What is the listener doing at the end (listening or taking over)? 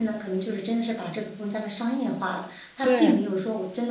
listening